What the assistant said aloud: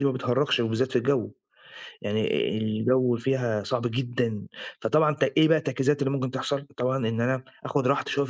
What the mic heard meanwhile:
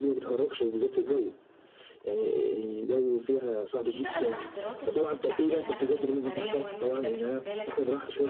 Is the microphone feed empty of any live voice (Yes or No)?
No